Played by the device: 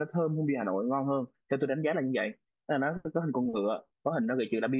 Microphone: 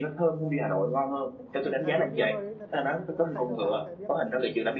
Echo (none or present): present